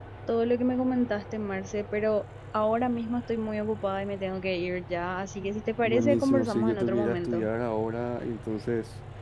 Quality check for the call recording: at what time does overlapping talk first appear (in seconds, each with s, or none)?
5.8 s